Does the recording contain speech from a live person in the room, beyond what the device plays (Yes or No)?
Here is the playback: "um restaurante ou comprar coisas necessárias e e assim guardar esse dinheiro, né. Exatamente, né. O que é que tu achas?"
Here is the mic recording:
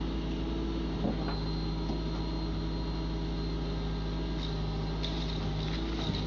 No